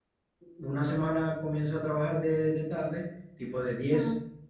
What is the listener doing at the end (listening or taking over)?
listening